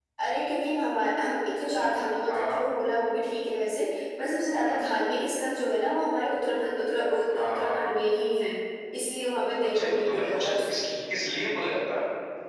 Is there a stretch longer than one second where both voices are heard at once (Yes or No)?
Yes